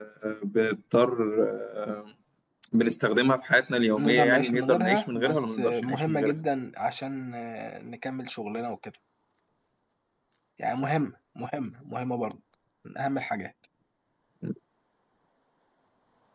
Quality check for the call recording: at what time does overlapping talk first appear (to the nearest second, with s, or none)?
4 s